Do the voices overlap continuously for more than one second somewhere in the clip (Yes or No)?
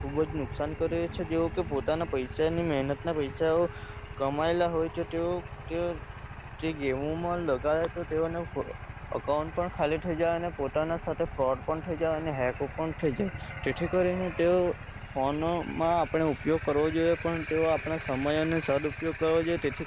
No